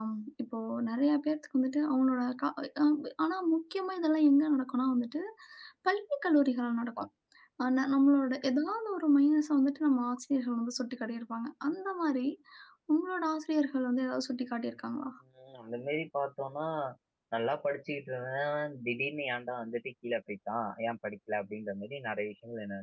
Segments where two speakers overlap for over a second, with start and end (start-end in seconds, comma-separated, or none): none